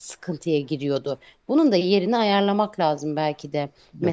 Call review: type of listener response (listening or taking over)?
taking over